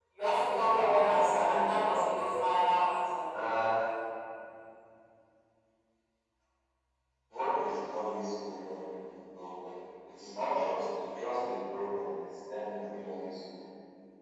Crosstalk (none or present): present